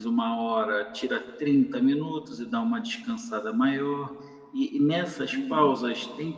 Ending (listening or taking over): listening